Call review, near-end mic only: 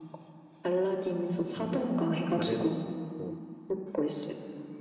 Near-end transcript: 좀 더 잘 해낼 수 있고,

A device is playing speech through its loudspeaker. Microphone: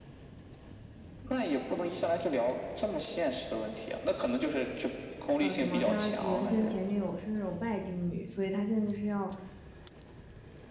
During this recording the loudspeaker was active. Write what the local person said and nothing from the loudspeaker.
呃，什么他原先前女友是那种拜金女，所以他现在就是要

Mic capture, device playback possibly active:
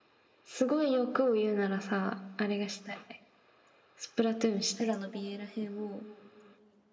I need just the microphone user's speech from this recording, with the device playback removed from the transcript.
フラの美瑛らへんを

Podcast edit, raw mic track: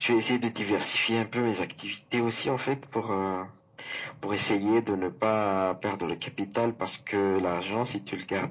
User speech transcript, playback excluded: none

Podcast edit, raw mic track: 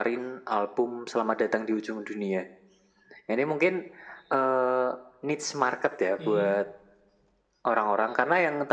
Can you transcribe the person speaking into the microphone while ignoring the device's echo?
Mm-mm.

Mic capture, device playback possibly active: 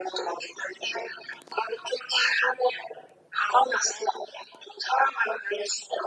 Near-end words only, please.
none

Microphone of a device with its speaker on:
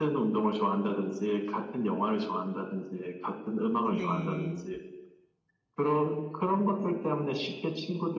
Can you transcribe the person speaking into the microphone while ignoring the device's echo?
네,

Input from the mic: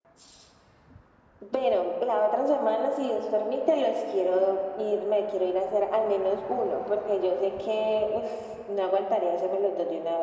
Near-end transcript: none

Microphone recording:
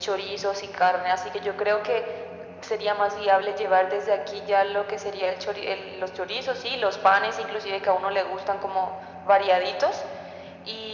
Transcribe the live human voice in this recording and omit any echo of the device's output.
none

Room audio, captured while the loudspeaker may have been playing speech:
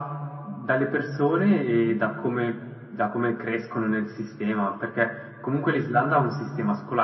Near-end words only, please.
none

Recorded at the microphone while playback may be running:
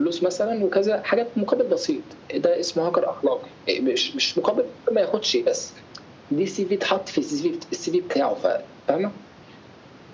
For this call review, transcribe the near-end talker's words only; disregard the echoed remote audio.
none

